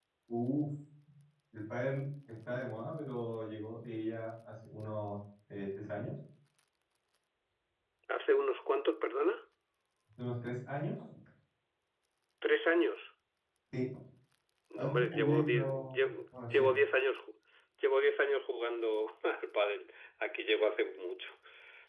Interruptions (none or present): present